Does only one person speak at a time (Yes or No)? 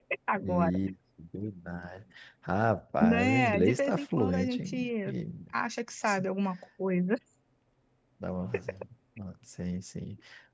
No